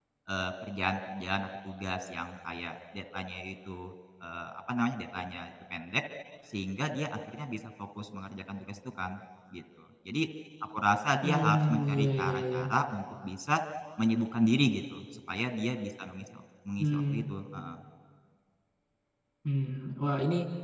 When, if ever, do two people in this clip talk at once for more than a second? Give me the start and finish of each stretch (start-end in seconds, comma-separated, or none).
11.2-12.6